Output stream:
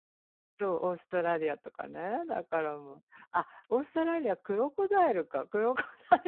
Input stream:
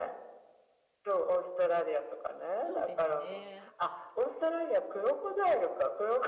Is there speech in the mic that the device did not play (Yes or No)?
Yes